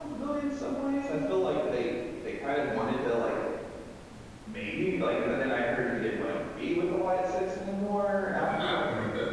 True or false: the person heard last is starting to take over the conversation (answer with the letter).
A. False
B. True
B